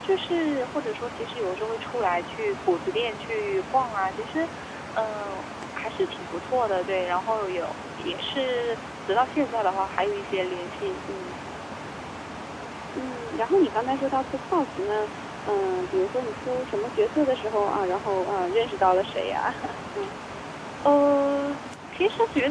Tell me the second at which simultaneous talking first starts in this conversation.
none

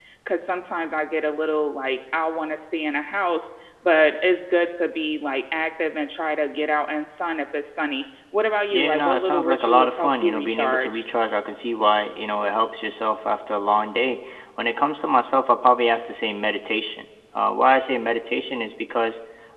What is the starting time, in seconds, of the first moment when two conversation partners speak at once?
8.7 s

